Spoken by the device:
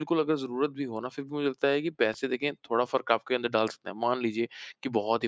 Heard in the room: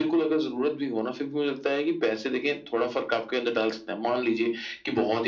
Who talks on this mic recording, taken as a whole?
echo only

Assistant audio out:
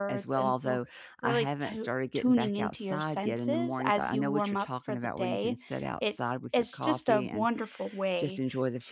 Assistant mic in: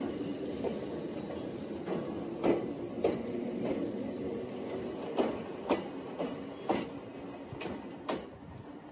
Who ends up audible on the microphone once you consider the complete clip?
neither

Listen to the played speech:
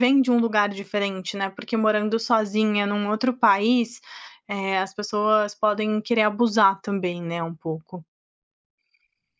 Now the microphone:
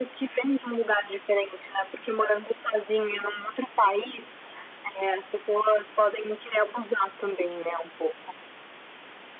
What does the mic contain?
echo only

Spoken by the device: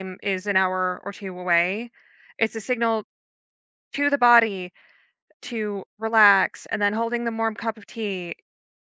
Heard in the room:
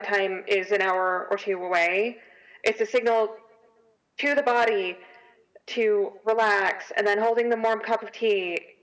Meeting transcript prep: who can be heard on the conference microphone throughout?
echo only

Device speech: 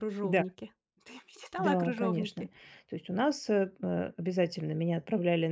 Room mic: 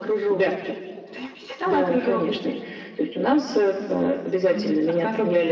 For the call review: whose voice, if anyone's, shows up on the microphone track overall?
both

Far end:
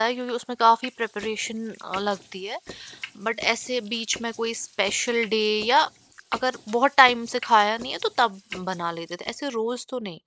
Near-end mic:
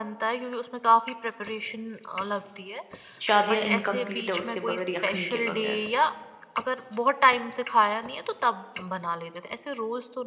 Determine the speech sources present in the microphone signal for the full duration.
both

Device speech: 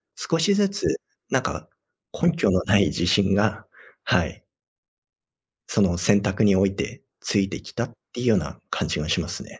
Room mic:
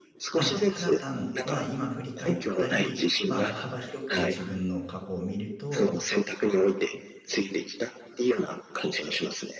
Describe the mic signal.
both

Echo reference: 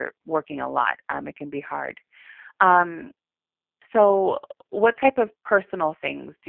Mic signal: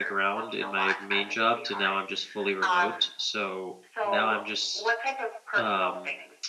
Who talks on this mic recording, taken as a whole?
both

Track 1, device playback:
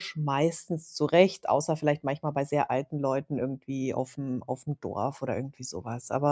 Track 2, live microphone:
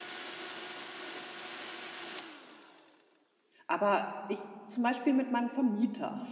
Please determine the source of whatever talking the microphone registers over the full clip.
user only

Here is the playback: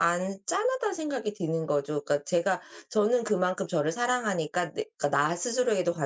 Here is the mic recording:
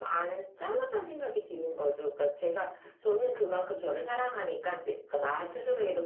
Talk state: echo only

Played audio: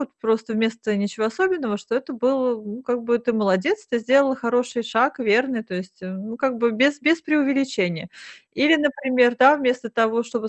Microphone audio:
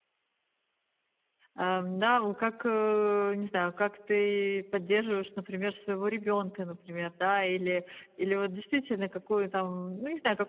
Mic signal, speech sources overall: user only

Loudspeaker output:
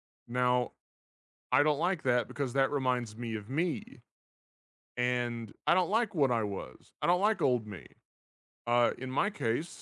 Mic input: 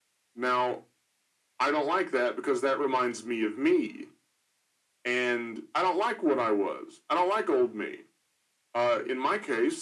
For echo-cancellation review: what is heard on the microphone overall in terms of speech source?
echo only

